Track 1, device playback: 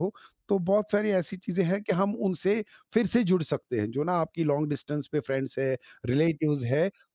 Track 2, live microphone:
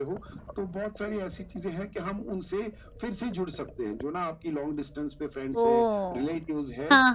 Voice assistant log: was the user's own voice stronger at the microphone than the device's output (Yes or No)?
Yes